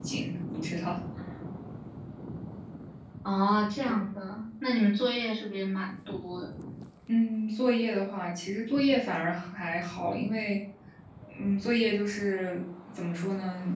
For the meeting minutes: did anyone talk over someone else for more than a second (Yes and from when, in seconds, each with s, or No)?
No